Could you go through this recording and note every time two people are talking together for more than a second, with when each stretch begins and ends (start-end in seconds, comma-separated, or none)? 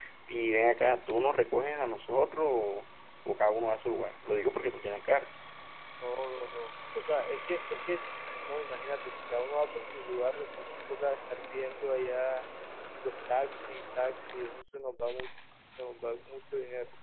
none